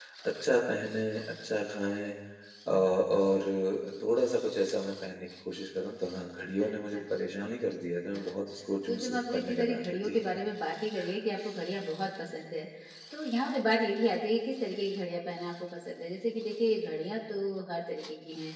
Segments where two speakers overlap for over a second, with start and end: 8.9-10.2

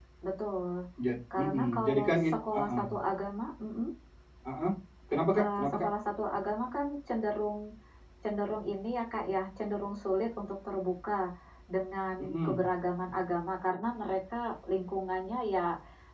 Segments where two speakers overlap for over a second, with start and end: 1.4-2.8

